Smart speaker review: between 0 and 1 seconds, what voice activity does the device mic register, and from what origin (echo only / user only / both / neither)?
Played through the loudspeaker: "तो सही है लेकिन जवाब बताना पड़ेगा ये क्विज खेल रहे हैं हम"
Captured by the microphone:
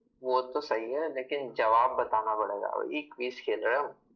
echo only